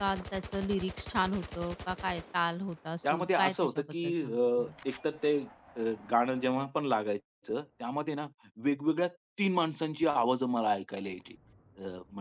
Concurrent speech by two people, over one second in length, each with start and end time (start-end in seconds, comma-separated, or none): 3.1-4.7